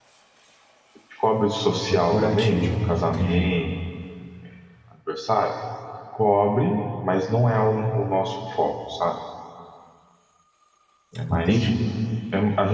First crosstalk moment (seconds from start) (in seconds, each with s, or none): 1.9 s